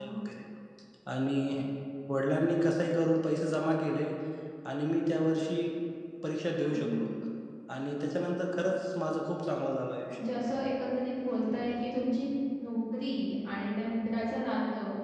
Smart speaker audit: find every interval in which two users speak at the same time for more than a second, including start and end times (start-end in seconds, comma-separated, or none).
none